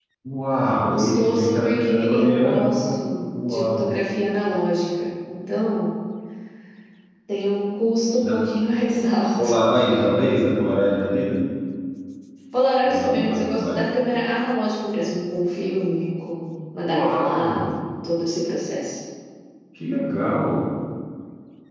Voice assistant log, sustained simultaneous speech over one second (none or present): present